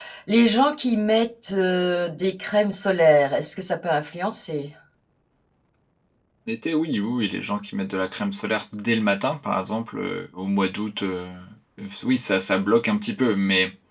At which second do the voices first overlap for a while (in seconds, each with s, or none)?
none